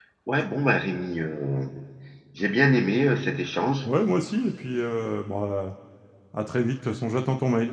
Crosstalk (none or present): none